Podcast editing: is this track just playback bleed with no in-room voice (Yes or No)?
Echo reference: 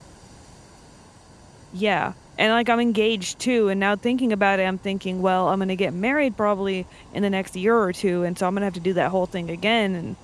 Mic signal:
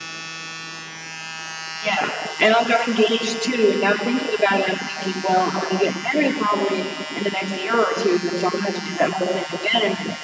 Yes